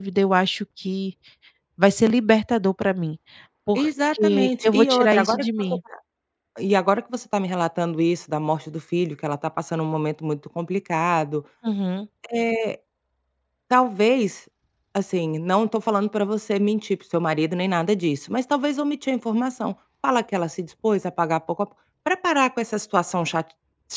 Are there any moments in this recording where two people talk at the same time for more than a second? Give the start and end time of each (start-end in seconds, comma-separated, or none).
3.8-5.8